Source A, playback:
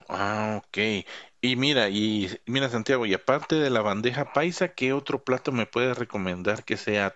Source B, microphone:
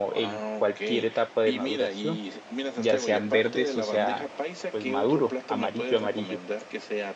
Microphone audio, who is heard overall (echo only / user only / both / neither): both